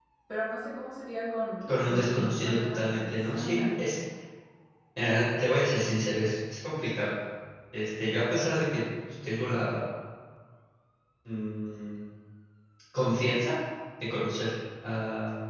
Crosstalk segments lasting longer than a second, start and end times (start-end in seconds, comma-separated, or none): 1.6-3.6